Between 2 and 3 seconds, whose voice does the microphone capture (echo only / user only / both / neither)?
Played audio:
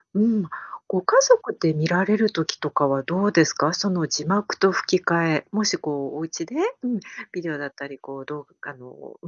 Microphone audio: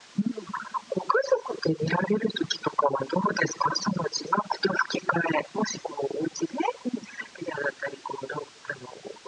echo only